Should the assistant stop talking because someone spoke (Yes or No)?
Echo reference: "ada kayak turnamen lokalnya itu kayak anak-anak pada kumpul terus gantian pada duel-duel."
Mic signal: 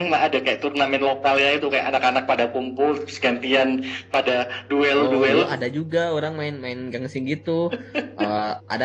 Yes